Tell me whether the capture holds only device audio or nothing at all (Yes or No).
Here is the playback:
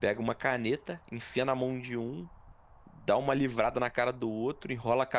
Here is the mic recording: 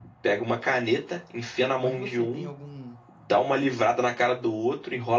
No